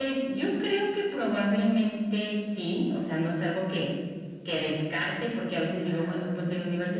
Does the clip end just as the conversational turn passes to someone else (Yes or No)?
No